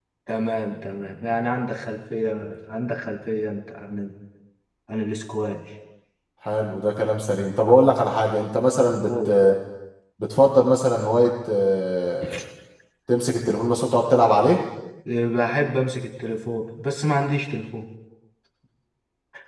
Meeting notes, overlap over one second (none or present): none